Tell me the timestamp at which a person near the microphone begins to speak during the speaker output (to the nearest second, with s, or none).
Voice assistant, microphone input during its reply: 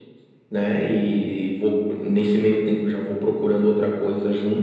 none